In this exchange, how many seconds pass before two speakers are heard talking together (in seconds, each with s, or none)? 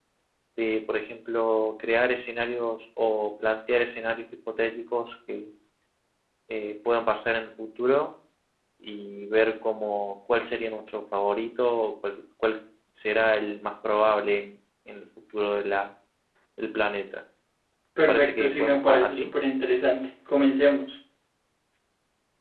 18.0 s